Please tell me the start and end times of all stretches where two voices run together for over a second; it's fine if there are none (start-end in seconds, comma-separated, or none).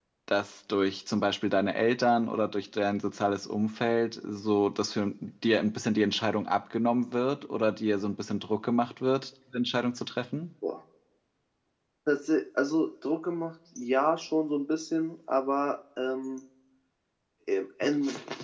none